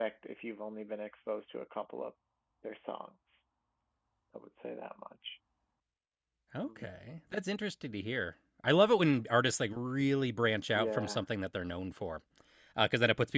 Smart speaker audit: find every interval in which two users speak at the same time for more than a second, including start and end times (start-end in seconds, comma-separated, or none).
none